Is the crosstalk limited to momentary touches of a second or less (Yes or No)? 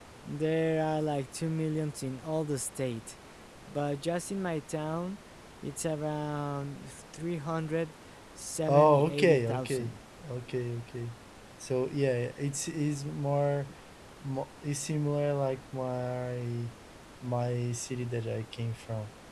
No